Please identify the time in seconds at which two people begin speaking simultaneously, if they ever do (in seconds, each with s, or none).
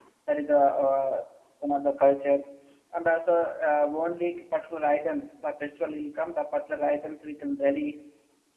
none